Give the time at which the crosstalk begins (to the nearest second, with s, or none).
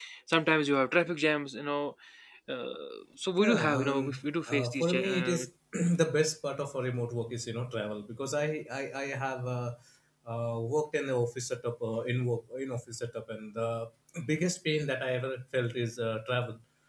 3 s